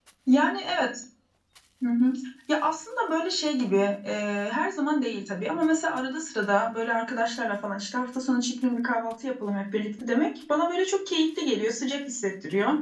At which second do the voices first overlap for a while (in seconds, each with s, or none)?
none